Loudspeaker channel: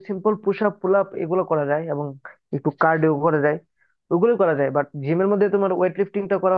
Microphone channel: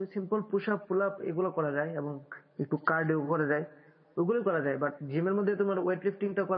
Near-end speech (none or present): none